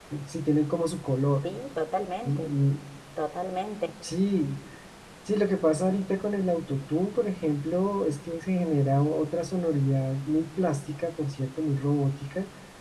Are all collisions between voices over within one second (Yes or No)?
Yes